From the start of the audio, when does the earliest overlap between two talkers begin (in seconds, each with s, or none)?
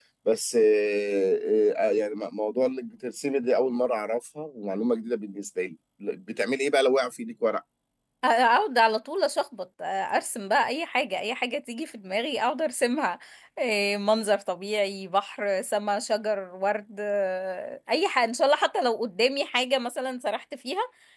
none